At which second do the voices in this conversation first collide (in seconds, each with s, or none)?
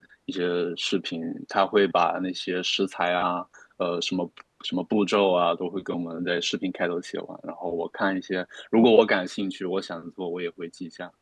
none